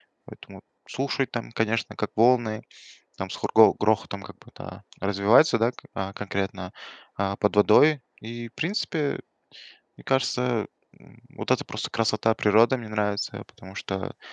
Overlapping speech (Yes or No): No